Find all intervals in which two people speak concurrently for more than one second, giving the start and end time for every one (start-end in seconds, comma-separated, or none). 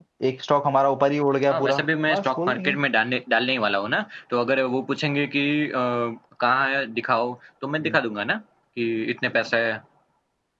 1.5-2.8